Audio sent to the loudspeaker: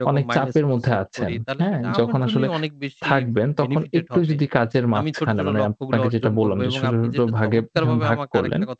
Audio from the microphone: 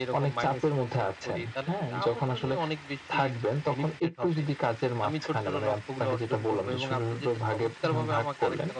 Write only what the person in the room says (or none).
none